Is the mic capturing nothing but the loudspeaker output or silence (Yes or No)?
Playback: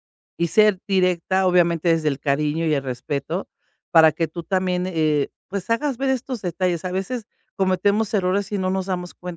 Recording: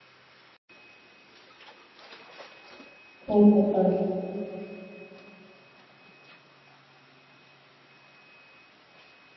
No